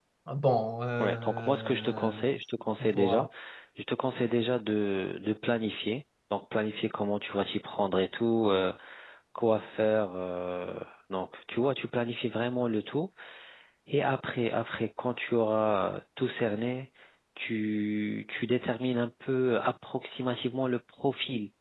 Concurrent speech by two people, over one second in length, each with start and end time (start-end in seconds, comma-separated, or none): 1.0-2.2